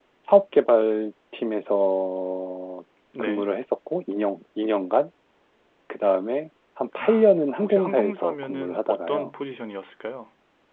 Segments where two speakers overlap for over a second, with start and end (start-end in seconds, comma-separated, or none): 7.6-9.3